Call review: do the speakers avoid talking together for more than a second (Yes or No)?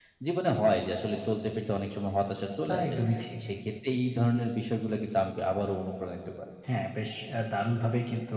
Yes